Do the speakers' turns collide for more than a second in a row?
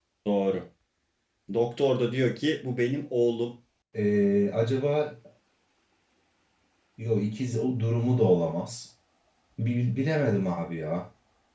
No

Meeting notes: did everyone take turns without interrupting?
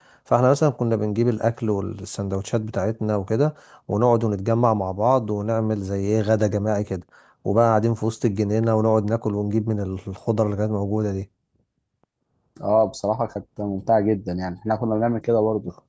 Yes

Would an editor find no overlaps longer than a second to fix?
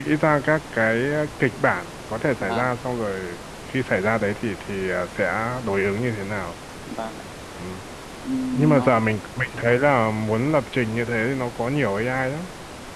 Yes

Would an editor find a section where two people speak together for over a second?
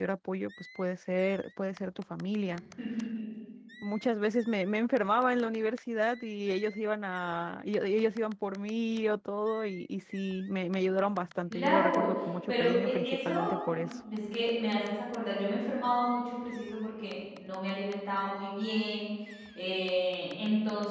Yes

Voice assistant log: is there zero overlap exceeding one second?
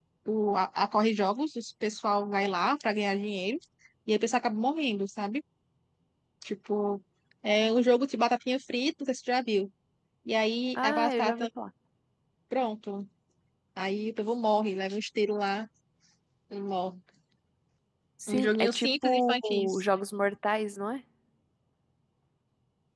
No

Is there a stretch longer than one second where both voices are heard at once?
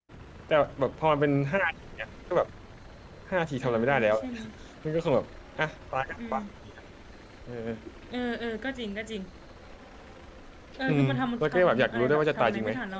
Yes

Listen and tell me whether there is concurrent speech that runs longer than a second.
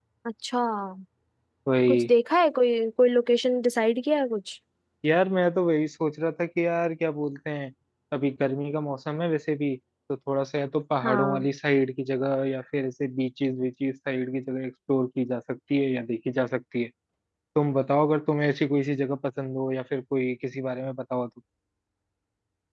No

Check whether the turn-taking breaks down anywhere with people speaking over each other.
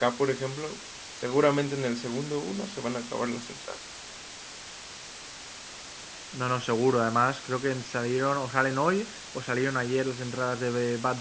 No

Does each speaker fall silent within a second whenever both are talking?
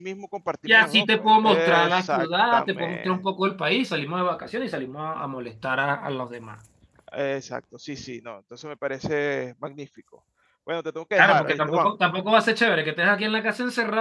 No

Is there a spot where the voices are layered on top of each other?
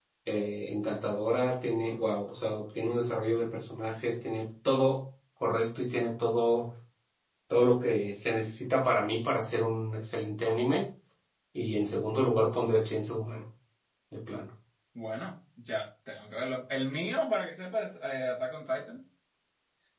No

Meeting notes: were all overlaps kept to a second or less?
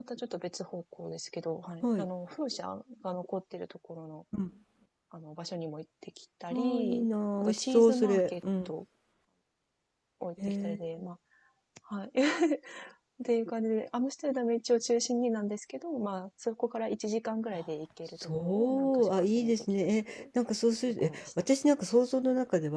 No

